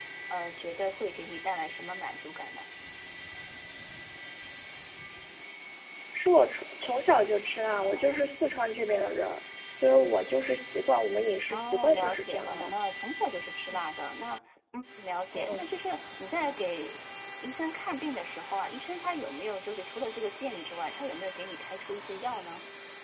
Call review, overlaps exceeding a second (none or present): present